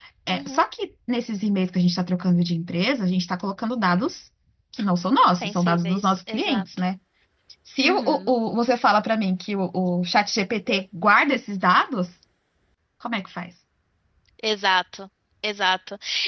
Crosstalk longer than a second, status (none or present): present